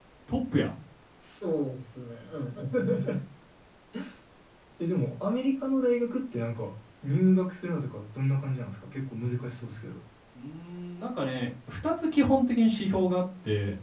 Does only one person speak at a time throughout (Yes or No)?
Yes